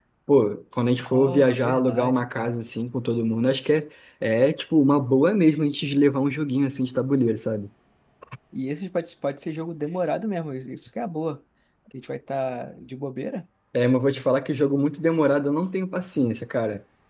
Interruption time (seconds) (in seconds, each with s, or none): 1.0 s